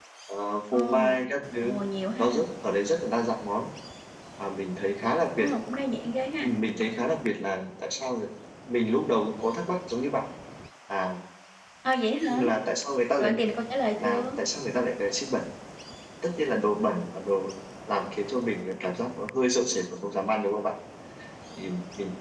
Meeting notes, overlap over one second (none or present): none